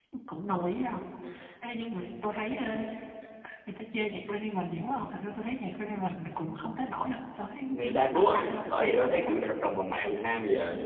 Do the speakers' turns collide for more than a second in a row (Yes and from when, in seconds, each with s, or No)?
Yes, from 7.7 s